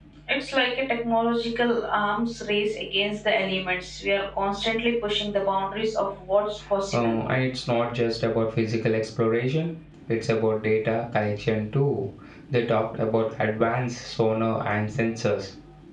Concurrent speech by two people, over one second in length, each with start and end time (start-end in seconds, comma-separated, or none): none